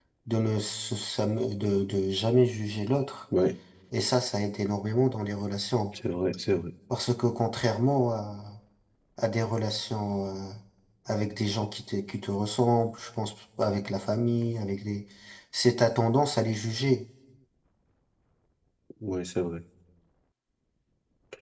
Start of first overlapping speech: none

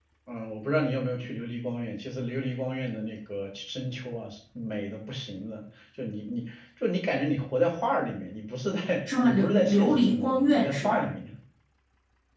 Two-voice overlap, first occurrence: 8.9 s

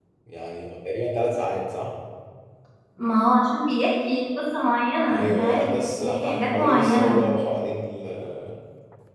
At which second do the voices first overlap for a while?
5.1 s

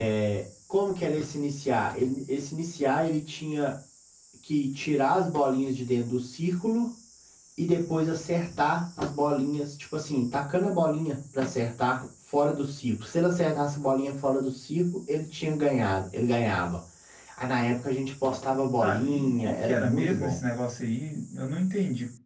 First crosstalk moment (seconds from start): 18.8 s

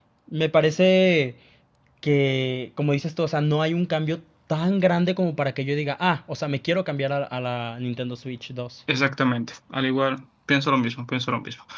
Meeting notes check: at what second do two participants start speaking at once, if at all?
none

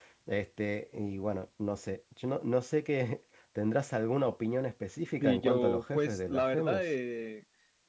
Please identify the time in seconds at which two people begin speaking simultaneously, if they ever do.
5.2 s

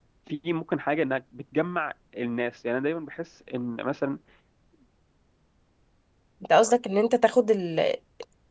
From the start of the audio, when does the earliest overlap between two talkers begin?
none

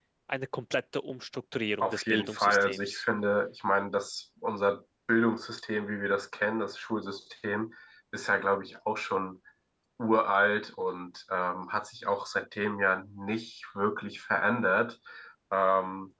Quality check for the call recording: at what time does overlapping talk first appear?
1.8 s

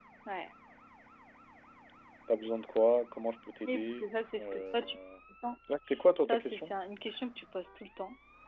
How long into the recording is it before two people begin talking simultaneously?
3.6 s

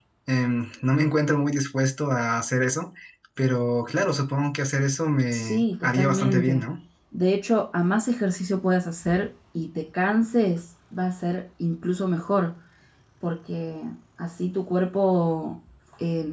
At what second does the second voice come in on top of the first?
5.3 s

